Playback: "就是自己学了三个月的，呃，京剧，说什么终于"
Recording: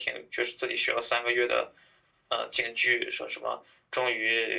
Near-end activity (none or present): none